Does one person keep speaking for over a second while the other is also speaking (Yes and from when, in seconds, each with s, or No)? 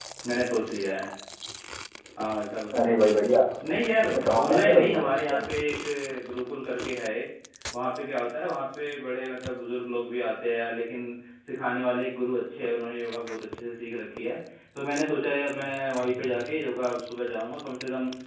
Yes, from 4.2 s